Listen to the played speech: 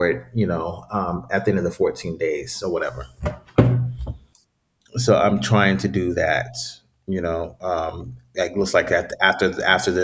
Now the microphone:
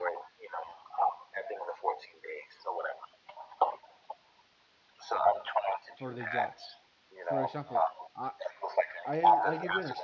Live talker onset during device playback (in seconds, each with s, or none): 5.9 s